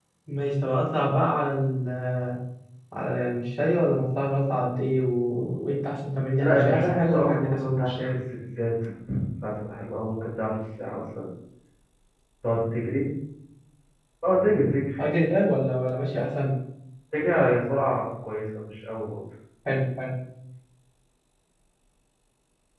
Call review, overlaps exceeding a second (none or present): present